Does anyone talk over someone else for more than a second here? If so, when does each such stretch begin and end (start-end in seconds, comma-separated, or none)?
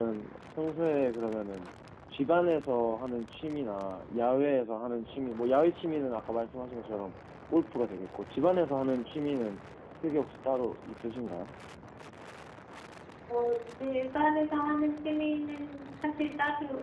none